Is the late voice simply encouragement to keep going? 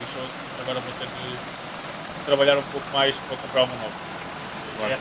Yes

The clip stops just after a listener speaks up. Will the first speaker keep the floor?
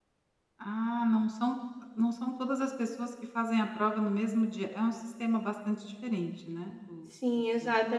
No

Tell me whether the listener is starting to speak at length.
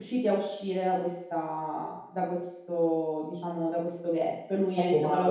Yes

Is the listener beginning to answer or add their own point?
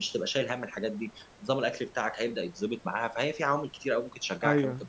Yes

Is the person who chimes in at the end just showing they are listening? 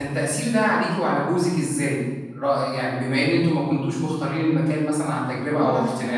No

